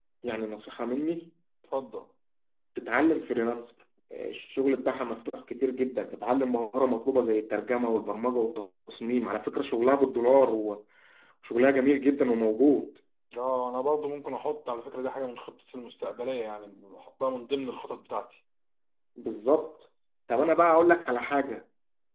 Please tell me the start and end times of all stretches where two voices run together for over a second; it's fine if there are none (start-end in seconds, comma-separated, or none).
none